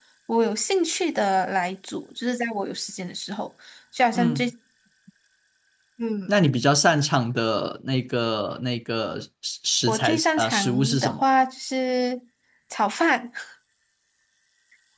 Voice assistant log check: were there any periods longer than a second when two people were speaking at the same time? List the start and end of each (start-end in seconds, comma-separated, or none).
9.9-11.2